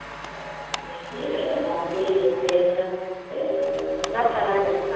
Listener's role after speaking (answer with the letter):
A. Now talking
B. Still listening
A